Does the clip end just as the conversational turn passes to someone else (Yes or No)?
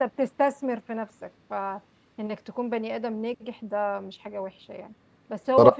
No